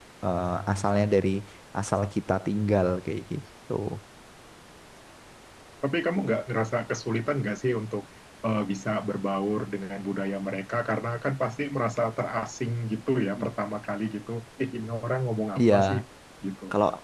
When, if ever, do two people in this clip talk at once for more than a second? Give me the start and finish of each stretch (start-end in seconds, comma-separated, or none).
none